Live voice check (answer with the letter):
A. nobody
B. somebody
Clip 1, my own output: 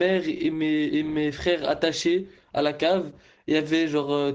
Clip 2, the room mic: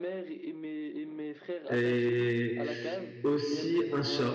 B